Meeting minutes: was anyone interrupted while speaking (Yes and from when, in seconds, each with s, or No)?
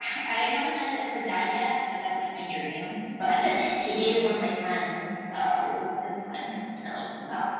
No